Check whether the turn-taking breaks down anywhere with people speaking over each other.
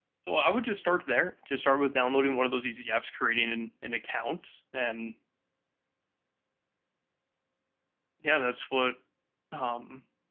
No

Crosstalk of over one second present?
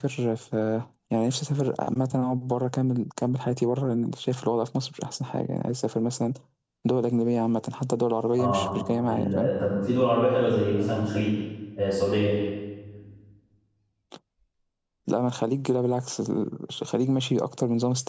No

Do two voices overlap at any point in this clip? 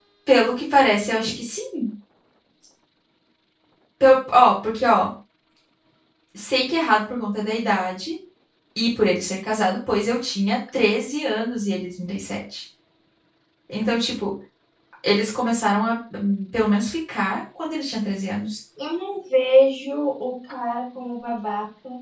No

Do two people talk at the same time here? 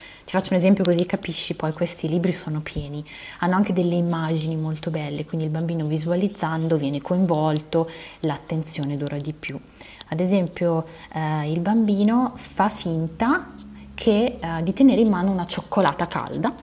No

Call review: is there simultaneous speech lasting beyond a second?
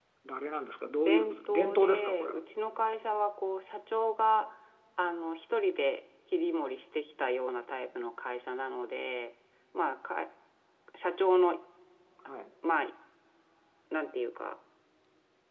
Yes, from 1.1 s

